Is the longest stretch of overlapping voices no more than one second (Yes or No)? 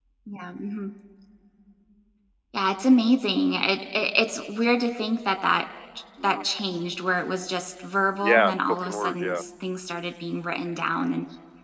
No